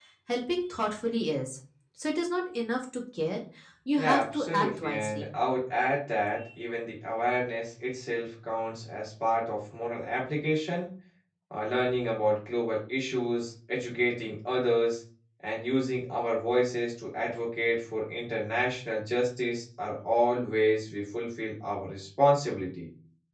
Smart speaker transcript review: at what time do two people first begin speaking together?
4.0 s

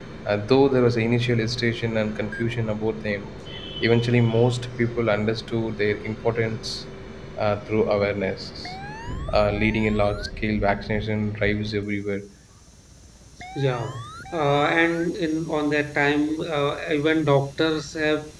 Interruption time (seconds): none

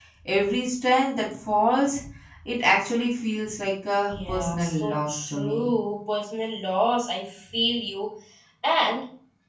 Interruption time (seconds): 4.0 s

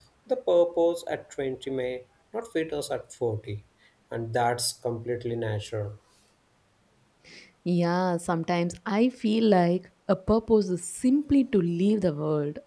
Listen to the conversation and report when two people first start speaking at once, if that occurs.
none

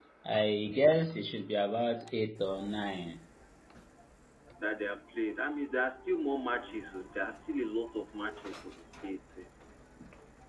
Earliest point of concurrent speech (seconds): none

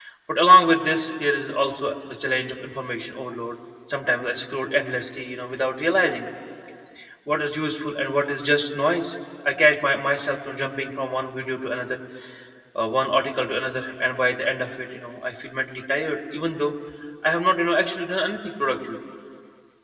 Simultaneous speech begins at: none

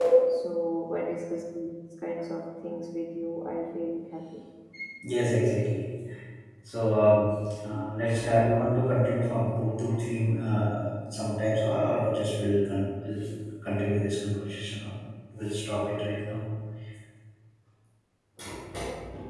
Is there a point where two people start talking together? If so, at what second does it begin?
none

